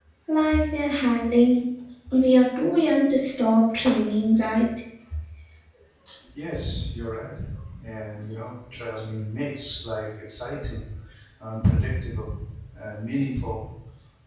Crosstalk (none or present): none